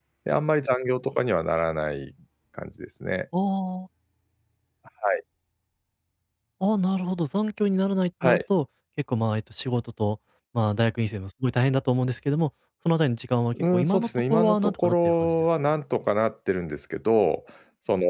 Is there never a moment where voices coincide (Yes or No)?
No